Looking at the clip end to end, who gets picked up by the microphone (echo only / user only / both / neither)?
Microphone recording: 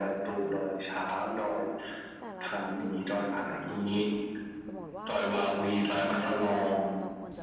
both